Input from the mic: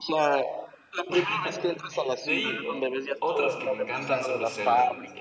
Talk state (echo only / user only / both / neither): both